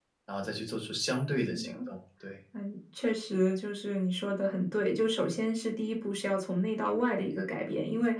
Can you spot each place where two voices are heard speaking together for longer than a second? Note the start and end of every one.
none

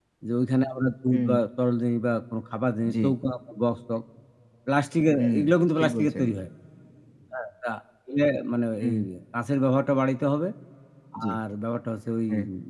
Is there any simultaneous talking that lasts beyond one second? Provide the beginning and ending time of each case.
none

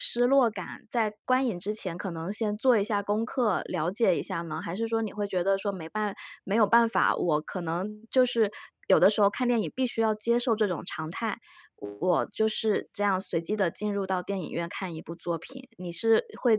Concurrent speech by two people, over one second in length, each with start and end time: none

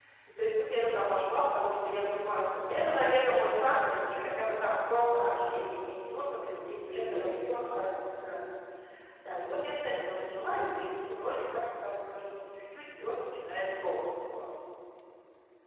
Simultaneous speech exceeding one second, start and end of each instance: 6.2-7.8

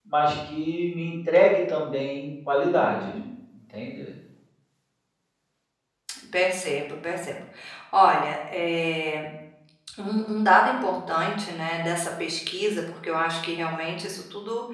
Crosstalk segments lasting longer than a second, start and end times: none

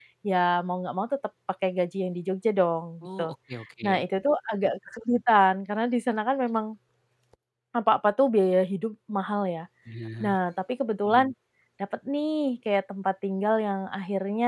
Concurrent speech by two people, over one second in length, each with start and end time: none

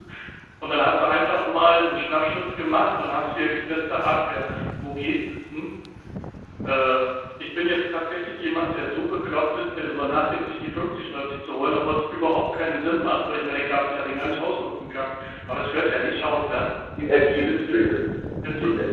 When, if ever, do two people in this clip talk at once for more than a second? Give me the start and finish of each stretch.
none

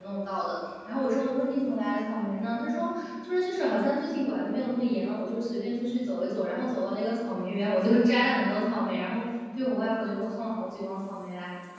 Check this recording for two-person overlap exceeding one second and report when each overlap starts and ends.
none

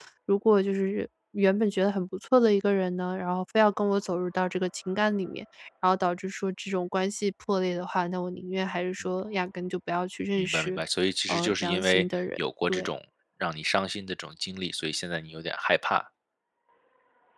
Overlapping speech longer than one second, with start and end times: 11.3-12.9

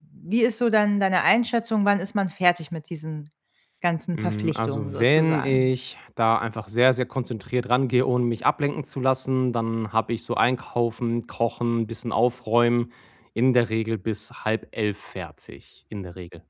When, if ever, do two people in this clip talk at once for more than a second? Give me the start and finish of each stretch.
4.1-5.7

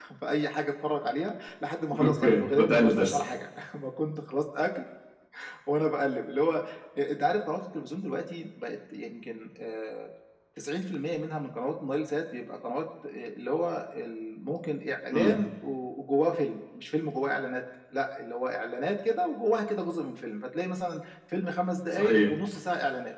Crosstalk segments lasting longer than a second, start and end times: 2.0-3.2

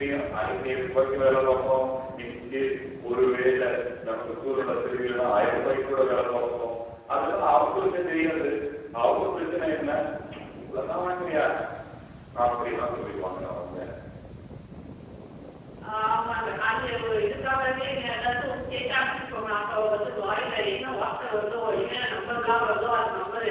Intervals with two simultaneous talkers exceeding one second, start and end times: none

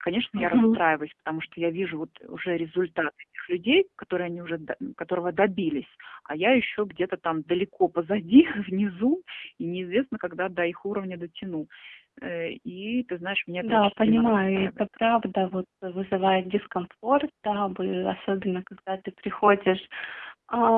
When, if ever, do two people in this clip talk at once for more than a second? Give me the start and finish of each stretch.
13.6-14.8

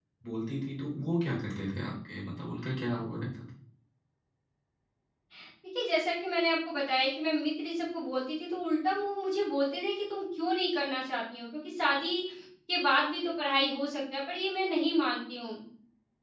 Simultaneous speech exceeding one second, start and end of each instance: none

